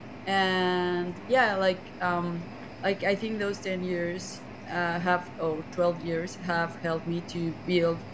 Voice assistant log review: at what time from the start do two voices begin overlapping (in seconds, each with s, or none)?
none